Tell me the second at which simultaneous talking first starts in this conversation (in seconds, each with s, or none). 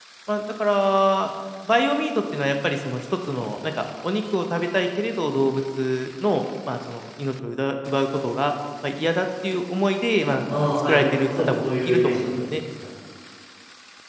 10.5 s